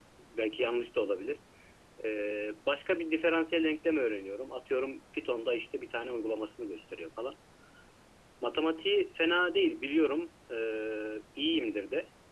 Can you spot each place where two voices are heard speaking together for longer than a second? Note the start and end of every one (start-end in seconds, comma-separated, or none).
none